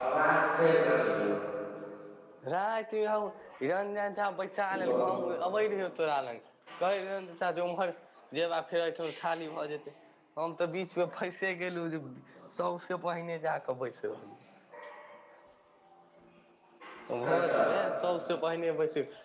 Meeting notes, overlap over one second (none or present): none